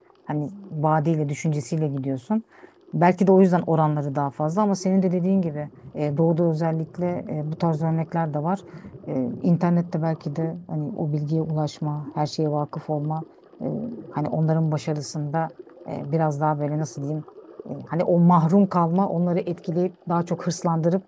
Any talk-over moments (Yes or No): No